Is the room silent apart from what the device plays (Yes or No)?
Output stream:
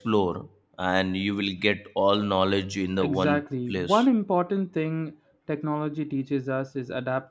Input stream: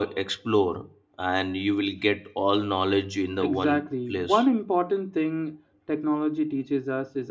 Yes